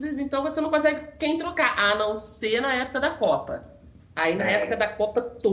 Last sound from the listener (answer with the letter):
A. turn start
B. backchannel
B